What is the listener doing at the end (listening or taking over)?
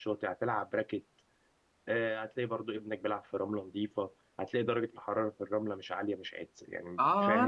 taking over